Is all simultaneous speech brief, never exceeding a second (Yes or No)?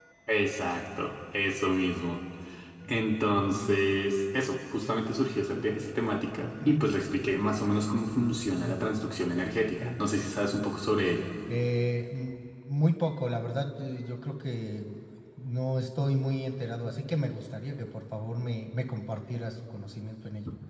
Yes